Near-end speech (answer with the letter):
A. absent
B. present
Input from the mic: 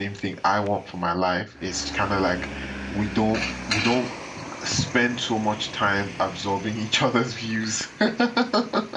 B